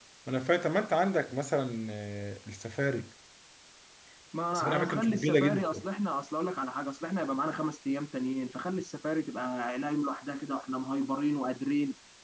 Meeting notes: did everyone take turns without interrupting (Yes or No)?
No